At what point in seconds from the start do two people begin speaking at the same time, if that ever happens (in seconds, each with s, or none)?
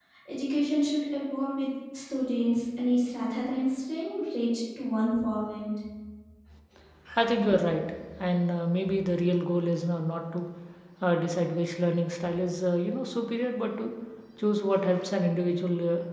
none